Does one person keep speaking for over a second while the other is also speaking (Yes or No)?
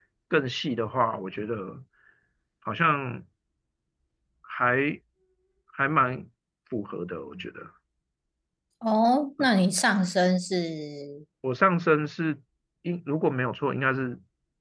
No